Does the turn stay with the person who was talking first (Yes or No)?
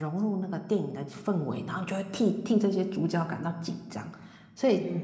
No